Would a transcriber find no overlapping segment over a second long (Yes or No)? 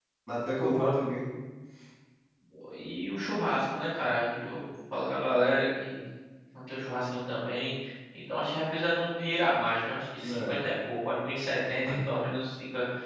Yes